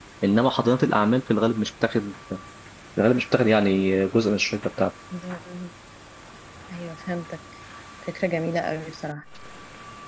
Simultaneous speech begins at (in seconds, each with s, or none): none